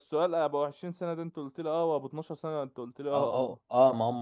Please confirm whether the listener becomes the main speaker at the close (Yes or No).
Yes